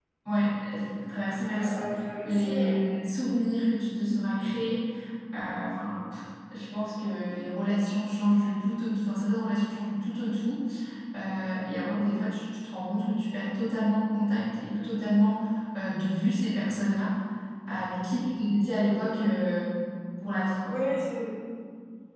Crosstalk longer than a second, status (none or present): none